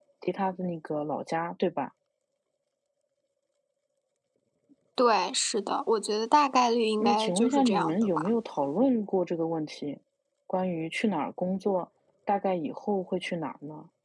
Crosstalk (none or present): present